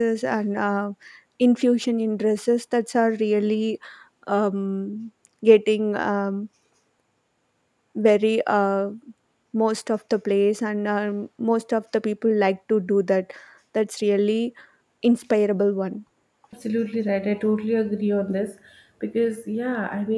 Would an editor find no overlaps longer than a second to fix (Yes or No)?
Yes